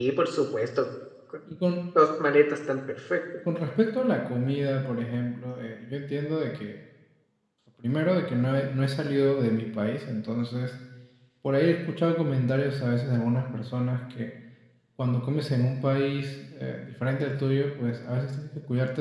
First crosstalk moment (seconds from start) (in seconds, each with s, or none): none